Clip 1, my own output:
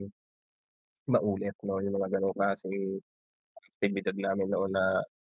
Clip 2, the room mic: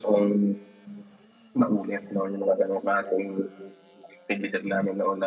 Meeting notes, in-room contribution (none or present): none